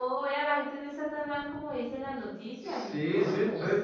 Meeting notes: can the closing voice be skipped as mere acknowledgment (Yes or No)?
No